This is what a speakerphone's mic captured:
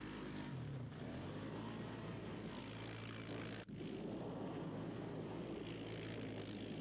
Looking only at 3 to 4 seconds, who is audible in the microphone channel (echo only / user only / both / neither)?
neither